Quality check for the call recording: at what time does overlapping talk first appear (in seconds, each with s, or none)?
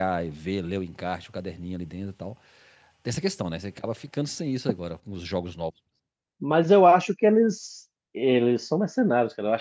none